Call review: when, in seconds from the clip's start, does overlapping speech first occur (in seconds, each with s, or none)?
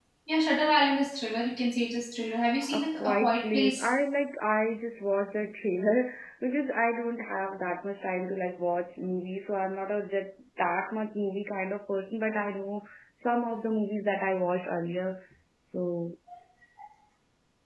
2.7 s